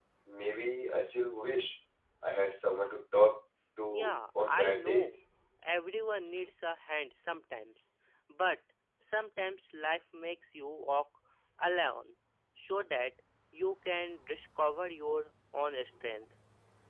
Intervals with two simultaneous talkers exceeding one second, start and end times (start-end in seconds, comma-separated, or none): 3.9-5.2